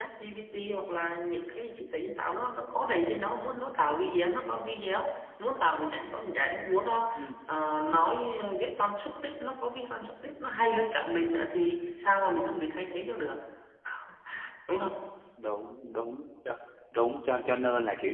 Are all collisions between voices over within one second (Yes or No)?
Yes